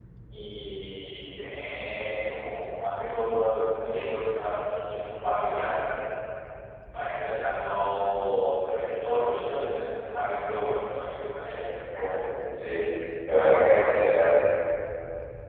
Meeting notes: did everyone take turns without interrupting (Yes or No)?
Yes